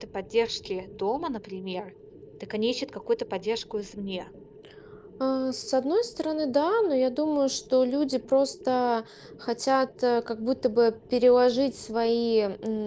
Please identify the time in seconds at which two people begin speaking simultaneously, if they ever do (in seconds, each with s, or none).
none